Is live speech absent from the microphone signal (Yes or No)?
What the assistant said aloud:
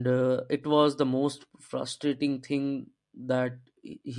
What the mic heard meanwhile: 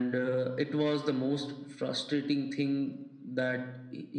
Yes